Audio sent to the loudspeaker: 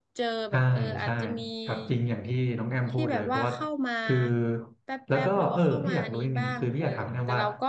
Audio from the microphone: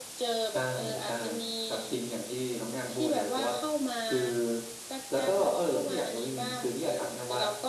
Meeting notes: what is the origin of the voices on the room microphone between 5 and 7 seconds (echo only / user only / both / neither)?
echo only